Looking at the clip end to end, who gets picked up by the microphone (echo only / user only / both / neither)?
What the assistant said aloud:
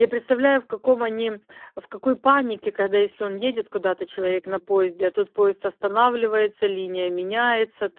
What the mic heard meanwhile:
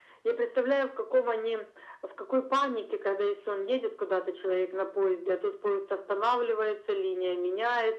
echo only